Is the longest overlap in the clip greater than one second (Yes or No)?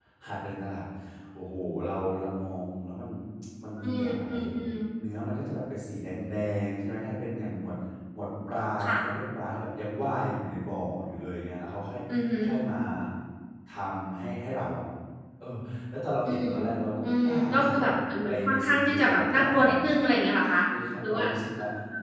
Yes